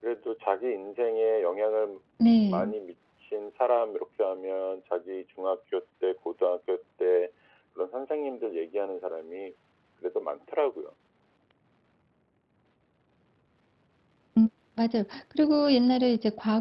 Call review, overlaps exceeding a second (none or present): none